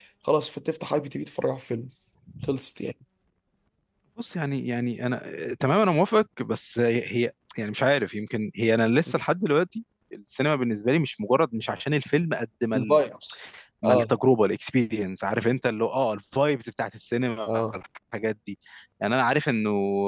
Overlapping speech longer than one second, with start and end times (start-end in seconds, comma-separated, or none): none